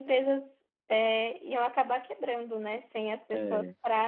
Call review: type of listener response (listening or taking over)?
listening